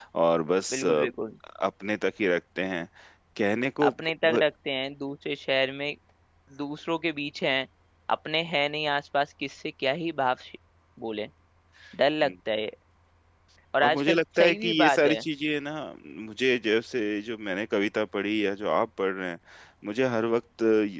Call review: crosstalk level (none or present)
present